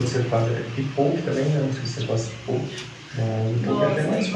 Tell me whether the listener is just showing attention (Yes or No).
No